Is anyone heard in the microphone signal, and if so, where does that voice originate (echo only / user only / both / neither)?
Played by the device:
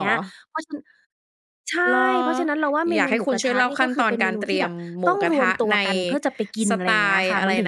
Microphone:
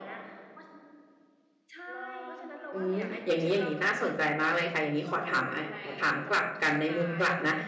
both